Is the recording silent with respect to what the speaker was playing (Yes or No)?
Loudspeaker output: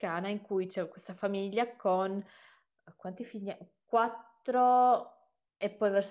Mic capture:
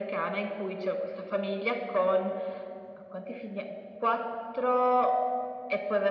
No